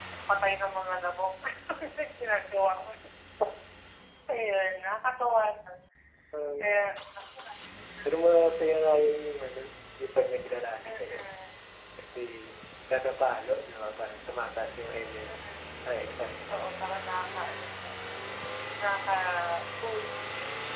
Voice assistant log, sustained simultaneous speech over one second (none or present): none